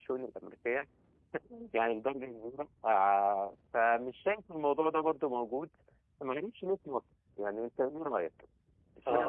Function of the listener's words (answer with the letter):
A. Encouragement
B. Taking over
B